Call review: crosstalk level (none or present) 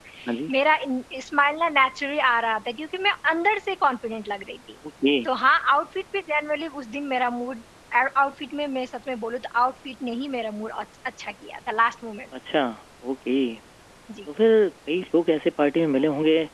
none